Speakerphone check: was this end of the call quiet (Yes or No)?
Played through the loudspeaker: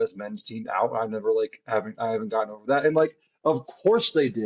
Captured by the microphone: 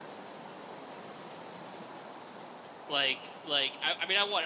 No